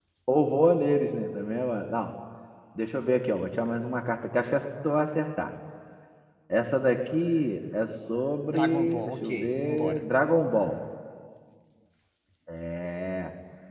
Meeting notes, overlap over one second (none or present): present